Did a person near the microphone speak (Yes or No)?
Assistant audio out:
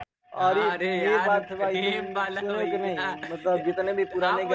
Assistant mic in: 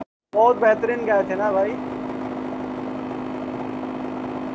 Yes